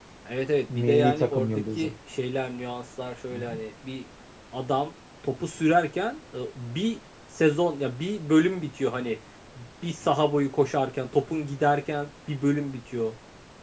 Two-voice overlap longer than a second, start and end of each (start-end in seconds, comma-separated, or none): 0.7-1.9